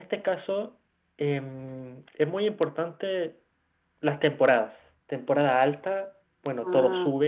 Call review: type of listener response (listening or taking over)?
listening